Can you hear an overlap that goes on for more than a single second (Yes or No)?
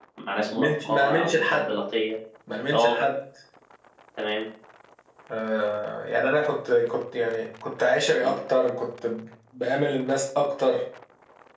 Yes